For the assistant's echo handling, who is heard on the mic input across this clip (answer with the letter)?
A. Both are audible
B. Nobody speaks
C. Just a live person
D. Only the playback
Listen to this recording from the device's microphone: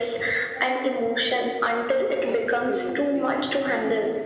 A